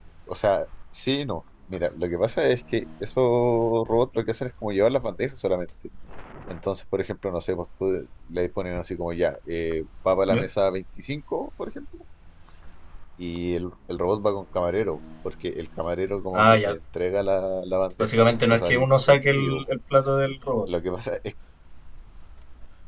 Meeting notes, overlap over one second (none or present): present